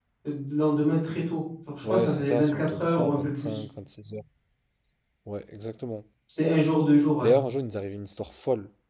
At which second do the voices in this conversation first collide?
1.8 s

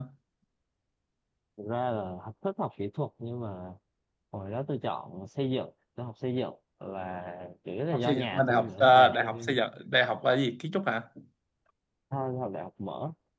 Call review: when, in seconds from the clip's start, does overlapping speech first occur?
7.9 s

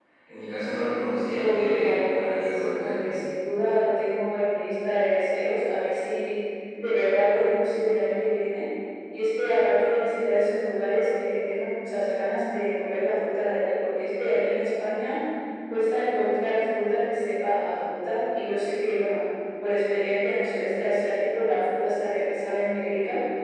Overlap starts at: 1.4 s

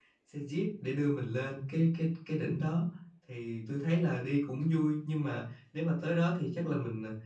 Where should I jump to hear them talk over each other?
none

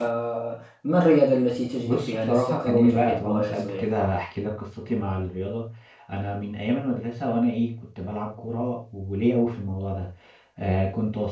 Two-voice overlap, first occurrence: 1.9 s

